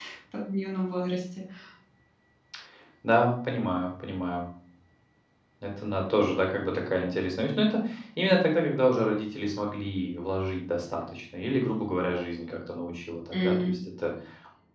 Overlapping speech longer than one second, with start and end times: none

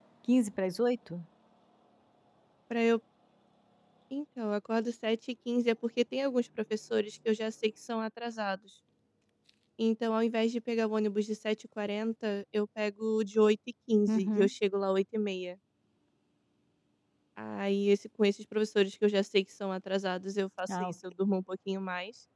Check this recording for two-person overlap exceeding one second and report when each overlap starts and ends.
none

